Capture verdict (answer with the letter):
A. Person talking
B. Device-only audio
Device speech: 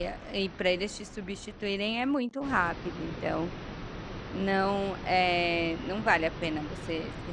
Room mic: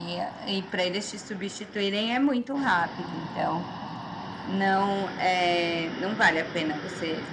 B